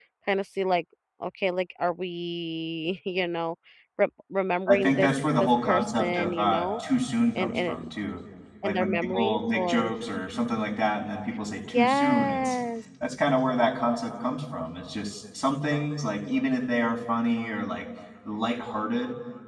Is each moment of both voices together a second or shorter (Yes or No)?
No